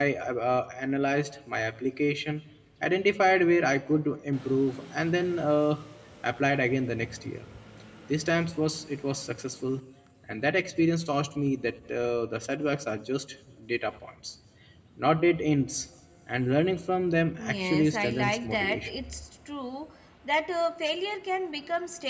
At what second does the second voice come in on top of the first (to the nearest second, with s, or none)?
17 s